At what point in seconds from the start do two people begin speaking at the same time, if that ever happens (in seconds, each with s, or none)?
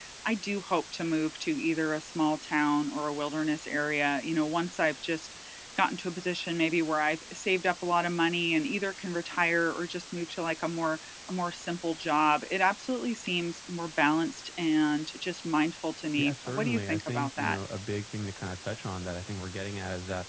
16.2 s